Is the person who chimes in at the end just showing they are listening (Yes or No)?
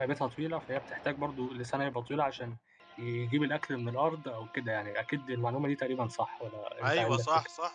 No